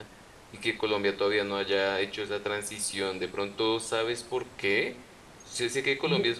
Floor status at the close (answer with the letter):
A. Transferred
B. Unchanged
B